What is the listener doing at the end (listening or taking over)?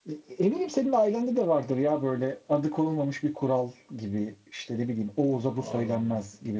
listening